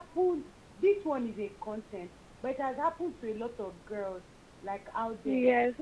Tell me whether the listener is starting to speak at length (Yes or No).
No